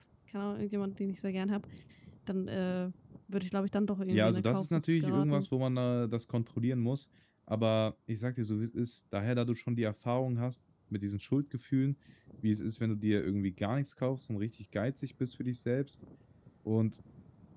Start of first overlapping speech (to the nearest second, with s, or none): 4 s